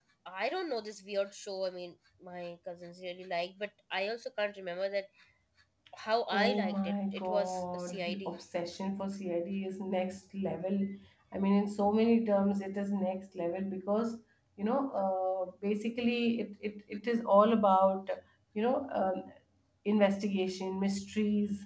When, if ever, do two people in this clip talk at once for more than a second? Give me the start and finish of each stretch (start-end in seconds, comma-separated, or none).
6.3-8.3